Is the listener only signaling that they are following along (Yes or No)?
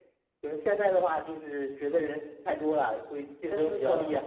No